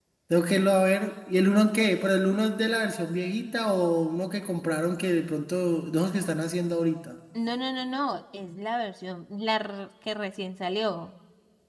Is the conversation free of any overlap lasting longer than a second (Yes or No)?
Yes